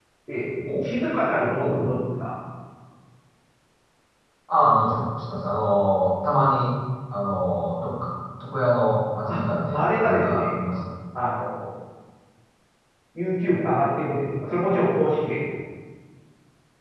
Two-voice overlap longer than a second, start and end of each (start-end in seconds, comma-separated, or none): 9.3-10.6